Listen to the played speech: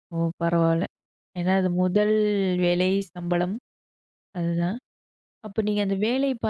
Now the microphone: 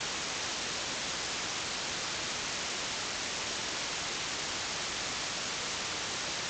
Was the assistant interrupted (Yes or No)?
No